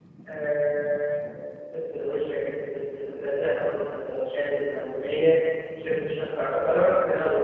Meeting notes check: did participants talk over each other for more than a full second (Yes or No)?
No